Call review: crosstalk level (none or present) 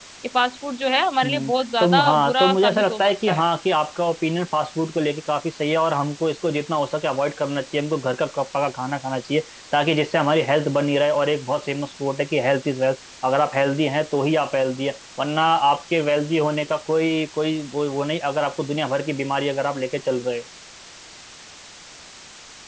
present